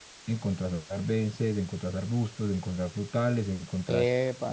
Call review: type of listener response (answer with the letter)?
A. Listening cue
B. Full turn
A